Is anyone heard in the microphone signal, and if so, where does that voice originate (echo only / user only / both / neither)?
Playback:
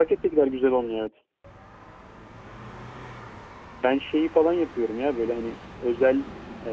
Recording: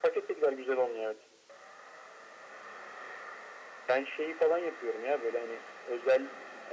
echo only